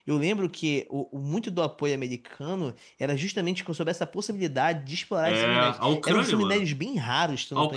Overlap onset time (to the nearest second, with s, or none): 5 s